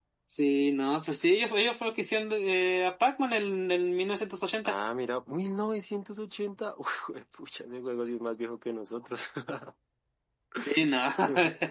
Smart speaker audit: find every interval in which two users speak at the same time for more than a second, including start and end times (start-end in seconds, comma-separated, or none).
none